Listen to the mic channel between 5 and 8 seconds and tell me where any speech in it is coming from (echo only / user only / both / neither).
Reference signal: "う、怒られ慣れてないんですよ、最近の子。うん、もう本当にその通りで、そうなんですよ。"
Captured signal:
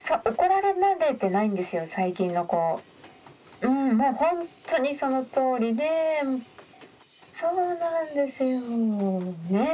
echo only